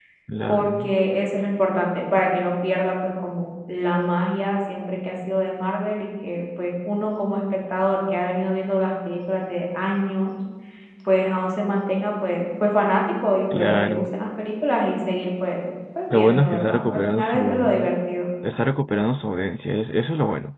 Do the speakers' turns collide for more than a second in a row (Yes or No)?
Yes